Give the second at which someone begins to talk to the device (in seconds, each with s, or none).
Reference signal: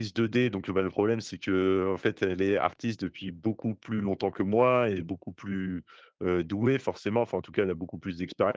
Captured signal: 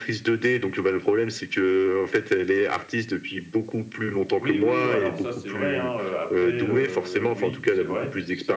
4.3 s